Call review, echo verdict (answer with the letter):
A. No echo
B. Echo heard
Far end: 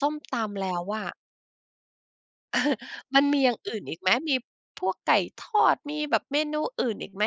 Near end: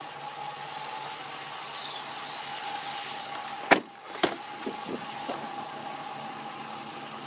A